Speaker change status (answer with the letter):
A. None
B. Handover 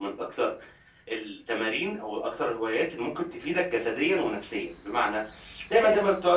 A